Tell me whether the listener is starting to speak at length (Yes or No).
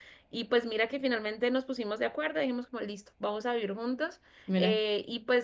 No